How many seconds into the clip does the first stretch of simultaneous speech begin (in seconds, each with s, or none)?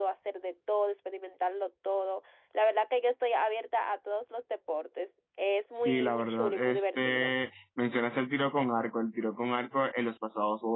5.8 s